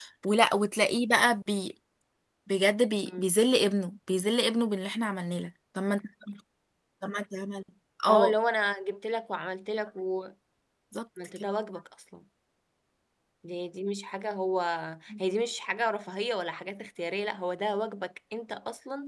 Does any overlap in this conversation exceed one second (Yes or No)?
No